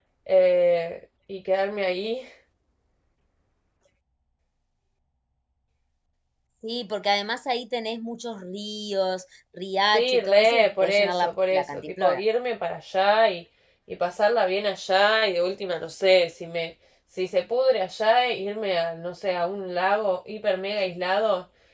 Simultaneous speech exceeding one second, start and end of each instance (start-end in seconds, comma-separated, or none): 9.9-12.2